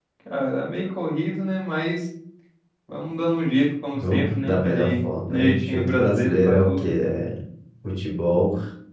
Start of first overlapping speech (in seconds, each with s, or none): 3.9 s